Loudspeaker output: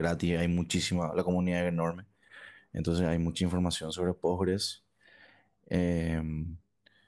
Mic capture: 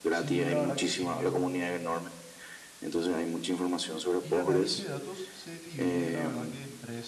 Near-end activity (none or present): present